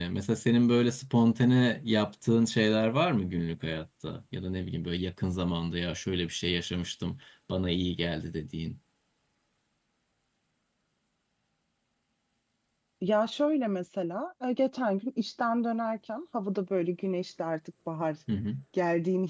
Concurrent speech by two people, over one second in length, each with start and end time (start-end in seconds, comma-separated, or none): none